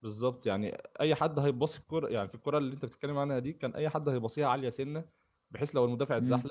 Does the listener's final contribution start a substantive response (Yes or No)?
No